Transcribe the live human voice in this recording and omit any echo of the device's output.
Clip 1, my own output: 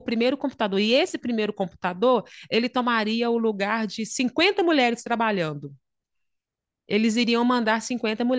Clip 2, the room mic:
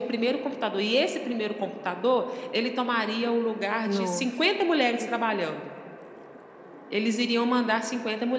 Nossa, que...

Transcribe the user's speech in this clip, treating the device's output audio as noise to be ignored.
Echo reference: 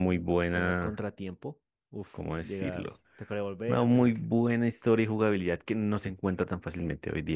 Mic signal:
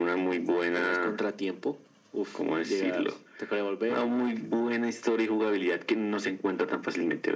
none

